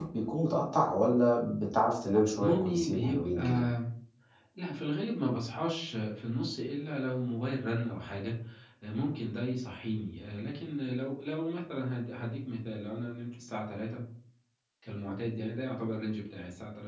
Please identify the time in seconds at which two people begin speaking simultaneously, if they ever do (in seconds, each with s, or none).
2.3 s